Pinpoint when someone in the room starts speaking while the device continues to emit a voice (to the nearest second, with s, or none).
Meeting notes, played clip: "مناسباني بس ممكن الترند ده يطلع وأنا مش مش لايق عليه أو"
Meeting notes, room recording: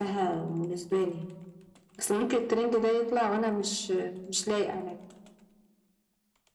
none